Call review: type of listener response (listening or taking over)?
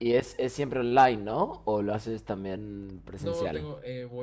taking over